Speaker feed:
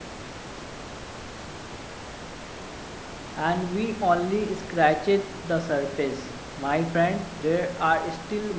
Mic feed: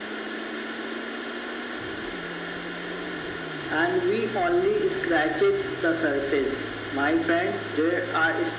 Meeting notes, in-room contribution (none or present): none